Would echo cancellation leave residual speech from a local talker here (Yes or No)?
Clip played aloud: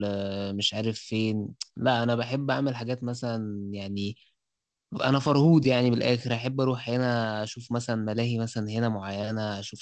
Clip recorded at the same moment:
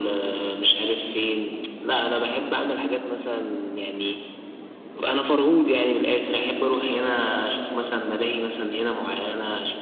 No